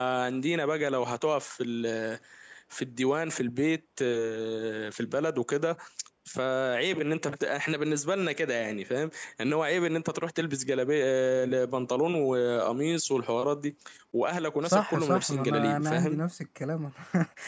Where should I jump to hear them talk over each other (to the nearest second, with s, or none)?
15 s